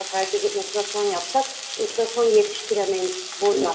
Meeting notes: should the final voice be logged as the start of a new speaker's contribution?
Yes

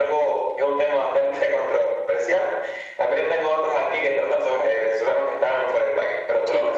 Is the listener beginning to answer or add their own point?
Yes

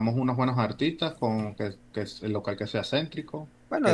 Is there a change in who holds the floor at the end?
Yes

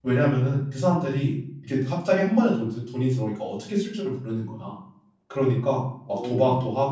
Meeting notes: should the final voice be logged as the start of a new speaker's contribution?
No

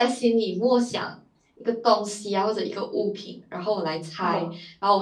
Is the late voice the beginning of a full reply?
No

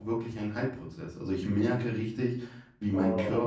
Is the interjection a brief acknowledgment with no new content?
Yes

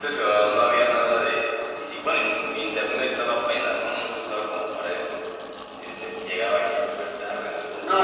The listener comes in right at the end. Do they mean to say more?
Yes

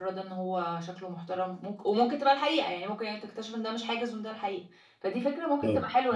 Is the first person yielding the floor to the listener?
Yes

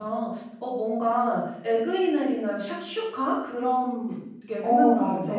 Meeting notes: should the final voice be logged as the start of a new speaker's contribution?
Yes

